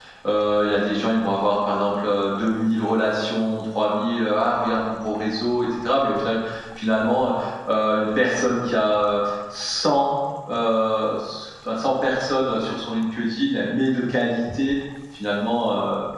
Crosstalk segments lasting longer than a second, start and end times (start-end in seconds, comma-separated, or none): none